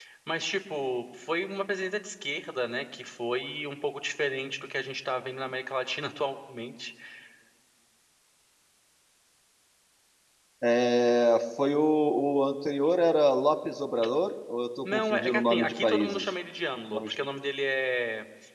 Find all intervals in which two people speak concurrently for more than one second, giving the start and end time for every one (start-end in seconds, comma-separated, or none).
14.8-16.3